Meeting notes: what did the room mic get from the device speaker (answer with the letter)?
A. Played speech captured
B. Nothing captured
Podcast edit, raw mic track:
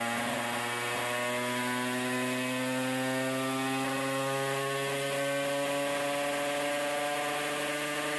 B